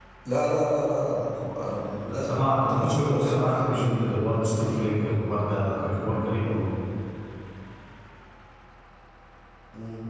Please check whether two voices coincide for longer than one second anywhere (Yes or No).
Yes